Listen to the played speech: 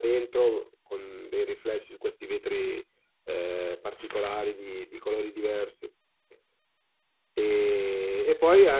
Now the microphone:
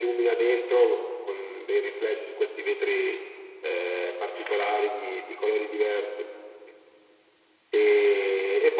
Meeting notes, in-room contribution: none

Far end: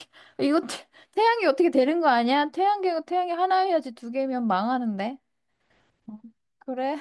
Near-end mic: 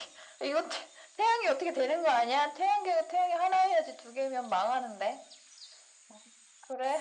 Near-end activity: none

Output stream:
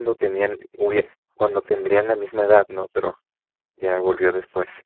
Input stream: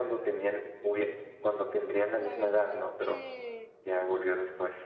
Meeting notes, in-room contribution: present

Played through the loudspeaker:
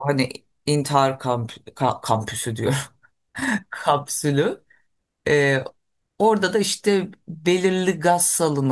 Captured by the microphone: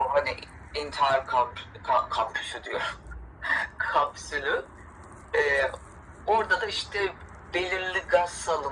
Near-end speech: none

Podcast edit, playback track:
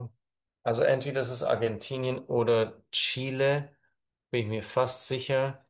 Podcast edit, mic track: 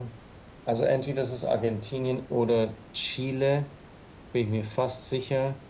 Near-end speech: none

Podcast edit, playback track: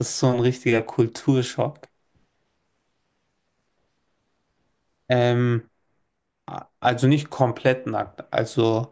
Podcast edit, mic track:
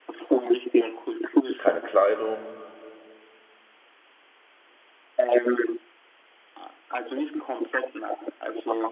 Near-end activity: present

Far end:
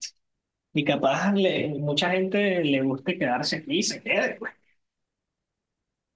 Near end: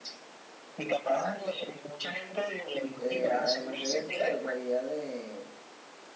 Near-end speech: present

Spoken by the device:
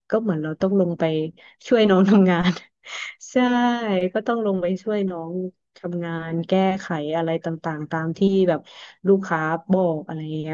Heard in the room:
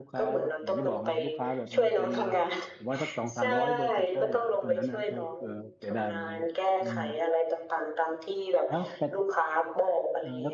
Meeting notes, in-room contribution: present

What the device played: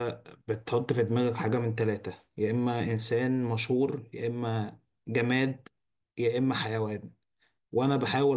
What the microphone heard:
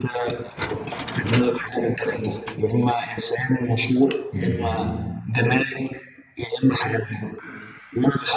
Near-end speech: present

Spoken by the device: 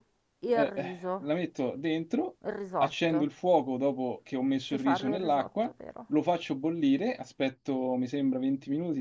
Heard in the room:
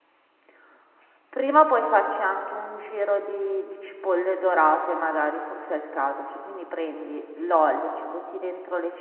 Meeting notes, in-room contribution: present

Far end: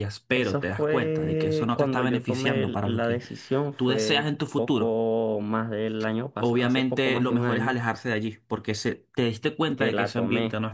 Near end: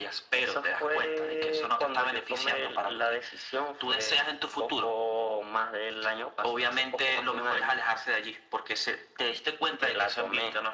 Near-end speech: none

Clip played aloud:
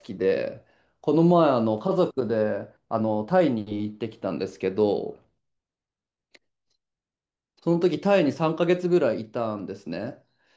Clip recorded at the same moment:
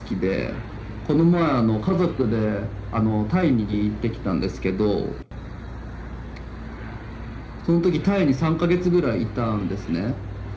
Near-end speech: none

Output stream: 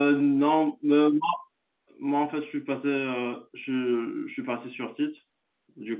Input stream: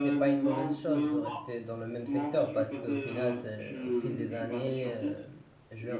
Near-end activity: present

